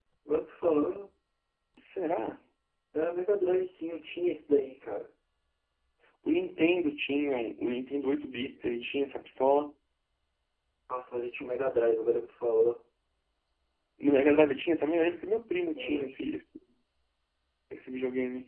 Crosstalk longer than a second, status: none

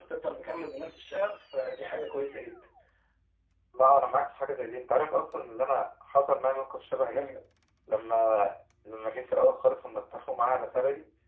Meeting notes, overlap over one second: none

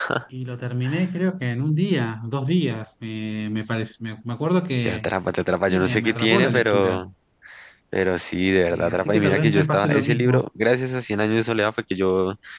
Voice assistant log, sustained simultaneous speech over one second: present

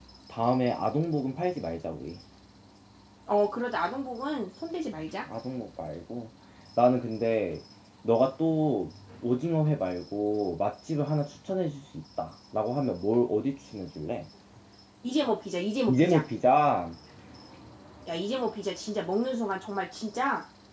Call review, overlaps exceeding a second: none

